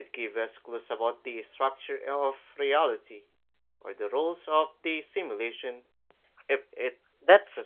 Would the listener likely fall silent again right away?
No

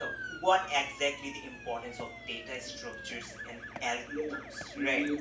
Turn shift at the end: Yes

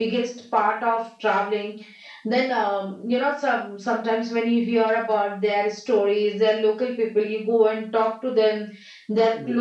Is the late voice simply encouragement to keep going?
Yes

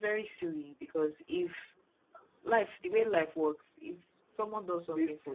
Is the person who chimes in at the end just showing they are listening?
Yes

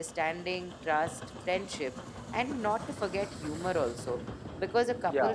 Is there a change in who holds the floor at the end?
No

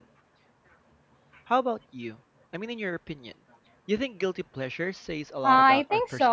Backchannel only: No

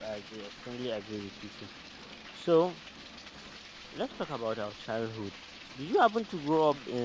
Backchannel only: Yes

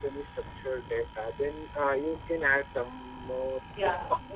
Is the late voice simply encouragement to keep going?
No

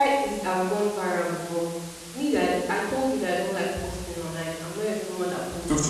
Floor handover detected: Yes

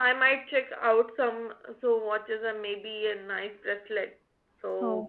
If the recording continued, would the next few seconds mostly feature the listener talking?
No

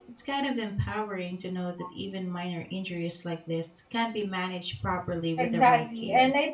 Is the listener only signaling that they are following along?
No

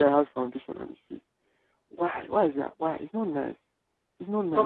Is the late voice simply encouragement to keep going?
No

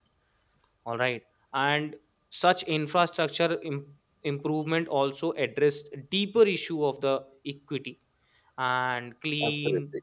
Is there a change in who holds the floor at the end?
No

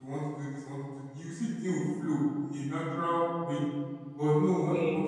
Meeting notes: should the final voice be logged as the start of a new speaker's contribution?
No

